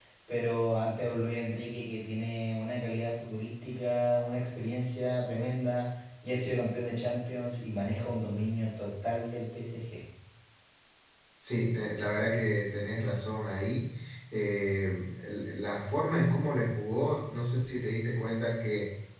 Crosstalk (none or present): none